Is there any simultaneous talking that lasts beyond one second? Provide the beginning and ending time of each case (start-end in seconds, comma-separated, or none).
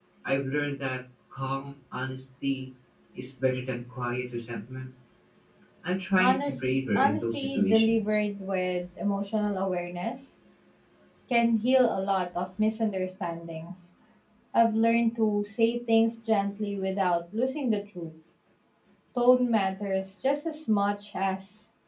6.2-8.2